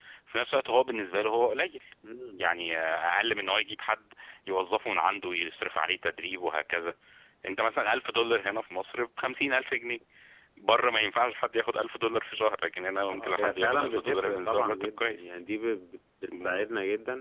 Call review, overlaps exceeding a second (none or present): present